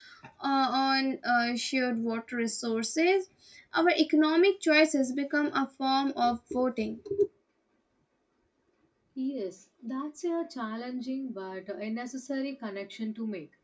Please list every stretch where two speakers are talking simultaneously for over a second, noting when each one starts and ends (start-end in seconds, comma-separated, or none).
none